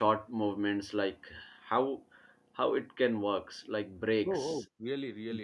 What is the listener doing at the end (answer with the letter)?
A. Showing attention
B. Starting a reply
B